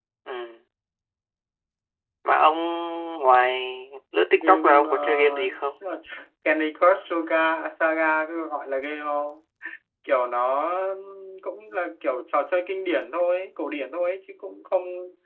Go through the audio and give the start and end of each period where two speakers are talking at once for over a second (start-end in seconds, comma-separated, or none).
4.3-5.8